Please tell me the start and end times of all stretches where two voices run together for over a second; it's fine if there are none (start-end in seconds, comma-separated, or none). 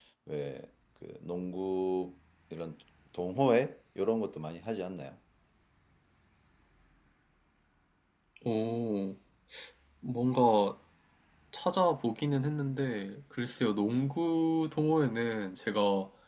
none